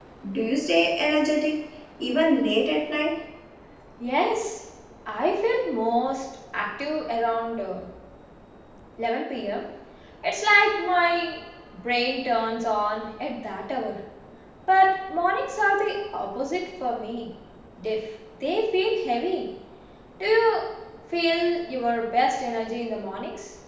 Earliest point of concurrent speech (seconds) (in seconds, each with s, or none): none